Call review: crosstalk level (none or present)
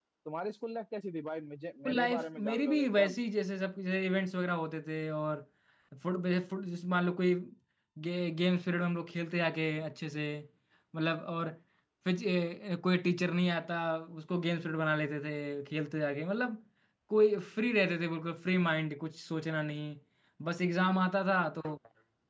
present